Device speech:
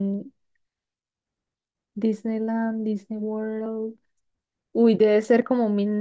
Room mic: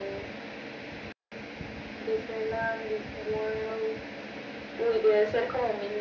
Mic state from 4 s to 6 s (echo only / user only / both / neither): echo only